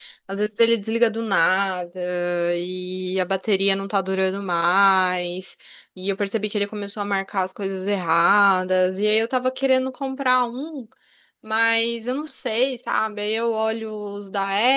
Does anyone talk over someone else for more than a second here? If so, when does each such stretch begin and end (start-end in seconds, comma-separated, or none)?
none